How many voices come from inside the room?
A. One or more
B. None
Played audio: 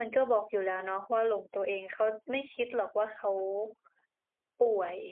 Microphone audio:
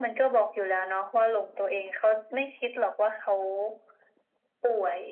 B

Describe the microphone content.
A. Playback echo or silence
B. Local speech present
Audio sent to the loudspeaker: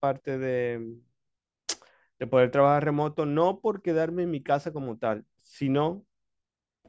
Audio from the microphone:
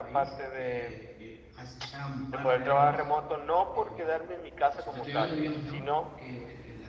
B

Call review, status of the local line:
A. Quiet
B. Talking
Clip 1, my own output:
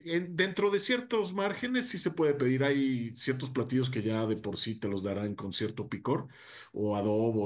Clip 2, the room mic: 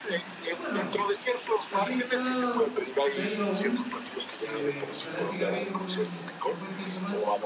B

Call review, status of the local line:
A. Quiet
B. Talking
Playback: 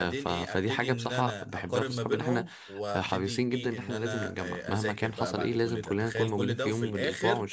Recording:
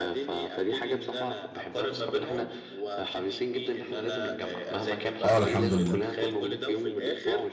B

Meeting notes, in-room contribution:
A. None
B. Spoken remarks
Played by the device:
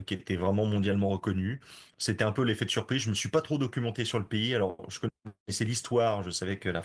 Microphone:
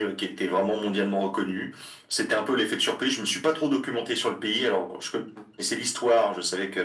A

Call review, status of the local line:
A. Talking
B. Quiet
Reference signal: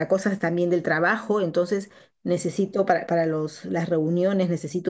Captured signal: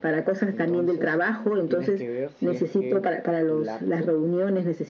A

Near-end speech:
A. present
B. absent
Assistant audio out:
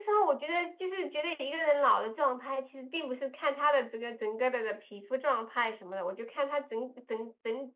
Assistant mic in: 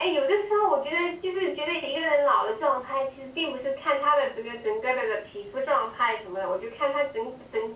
B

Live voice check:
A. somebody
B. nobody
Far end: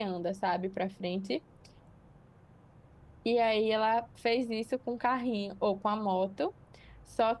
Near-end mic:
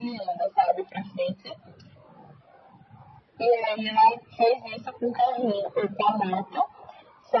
B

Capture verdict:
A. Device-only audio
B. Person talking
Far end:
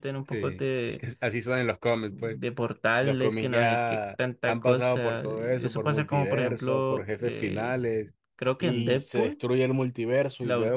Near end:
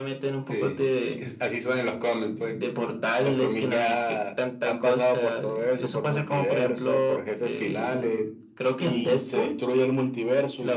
A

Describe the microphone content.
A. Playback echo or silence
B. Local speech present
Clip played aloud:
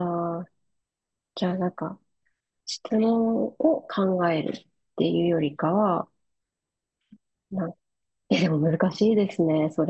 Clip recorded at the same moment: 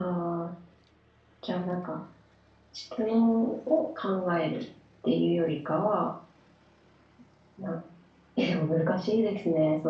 A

